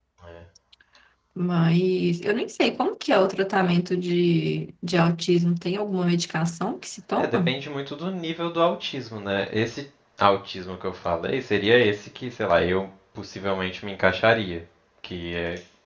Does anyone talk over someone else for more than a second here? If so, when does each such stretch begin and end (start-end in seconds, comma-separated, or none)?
none